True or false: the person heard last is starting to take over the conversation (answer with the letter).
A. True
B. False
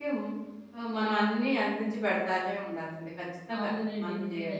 A